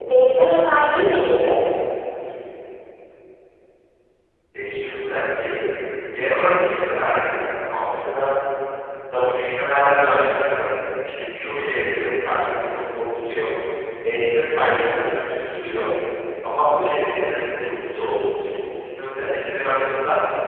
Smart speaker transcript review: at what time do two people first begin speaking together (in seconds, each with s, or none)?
none